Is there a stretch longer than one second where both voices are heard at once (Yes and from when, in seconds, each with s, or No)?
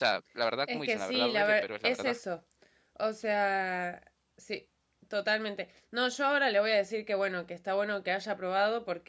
Yes, from 0.7 s